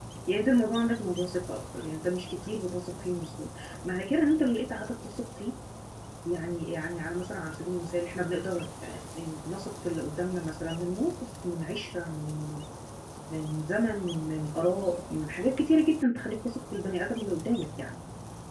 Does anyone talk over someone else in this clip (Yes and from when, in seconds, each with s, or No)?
No